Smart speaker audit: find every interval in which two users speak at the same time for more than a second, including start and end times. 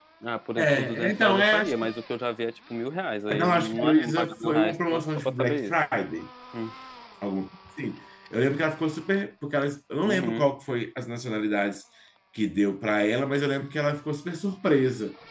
0.6-1.9, 3.3-5.7

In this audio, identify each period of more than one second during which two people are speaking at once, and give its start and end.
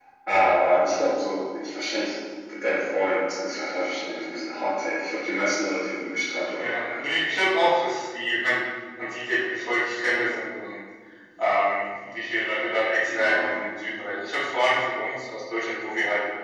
none

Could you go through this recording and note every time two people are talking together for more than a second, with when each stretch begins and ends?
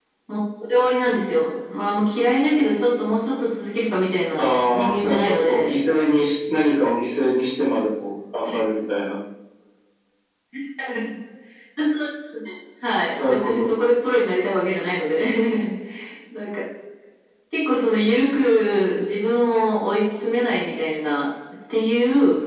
4.4-5.7

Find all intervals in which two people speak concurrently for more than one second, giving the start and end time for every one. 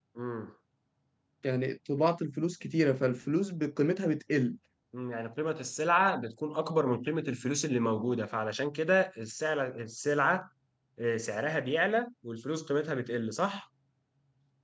none

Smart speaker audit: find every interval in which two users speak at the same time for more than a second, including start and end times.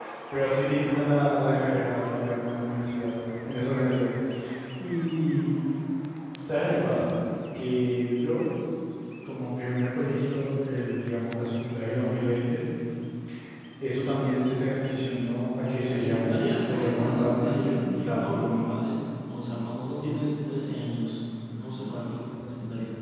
15.8-18.7

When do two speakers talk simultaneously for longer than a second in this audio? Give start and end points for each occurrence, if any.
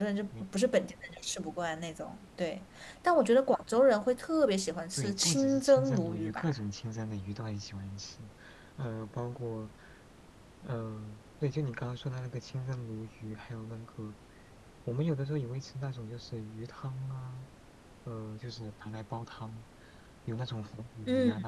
4.9-6.5

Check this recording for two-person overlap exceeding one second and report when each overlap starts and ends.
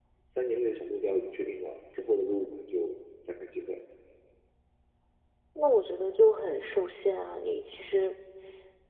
none

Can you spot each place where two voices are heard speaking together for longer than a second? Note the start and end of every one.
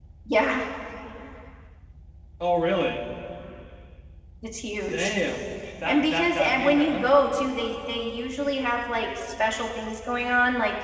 5.8-7.1

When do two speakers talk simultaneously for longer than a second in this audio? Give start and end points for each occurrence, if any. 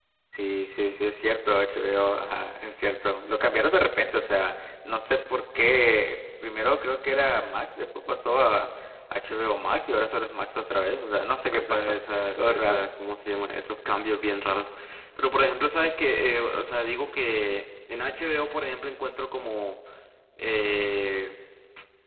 11.5-12.8

